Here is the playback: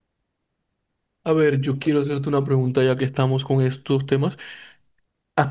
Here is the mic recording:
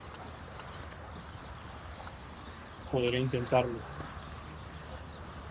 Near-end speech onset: 2.9 s

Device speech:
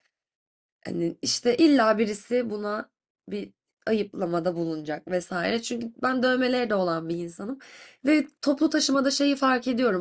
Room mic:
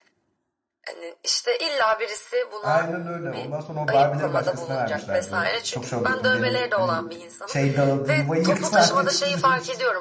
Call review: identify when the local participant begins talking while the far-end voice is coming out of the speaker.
2.6 s

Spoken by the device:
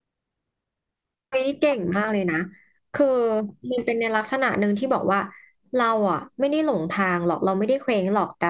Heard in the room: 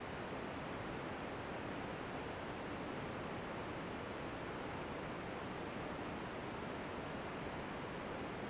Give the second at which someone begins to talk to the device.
none

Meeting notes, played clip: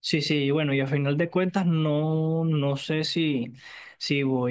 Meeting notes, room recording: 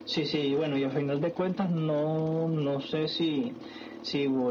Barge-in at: none

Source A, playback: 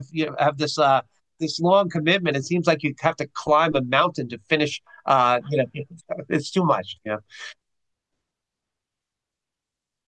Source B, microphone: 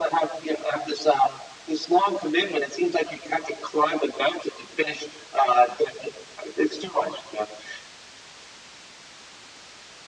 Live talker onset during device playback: none

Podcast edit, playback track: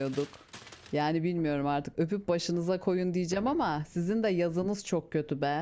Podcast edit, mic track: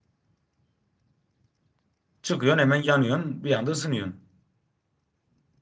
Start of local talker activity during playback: 2.2 s

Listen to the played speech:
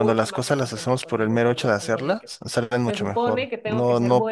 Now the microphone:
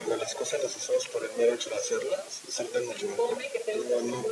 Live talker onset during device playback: none

